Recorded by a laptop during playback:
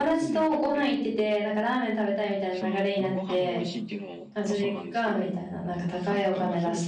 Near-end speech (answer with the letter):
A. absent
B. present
B